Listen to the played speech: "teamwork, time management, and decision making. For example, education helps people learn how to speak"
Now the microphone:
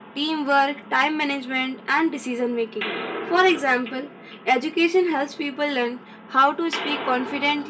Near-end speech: none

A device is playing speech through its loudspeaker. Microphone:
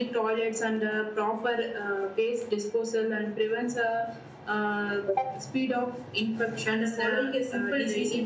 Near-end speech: present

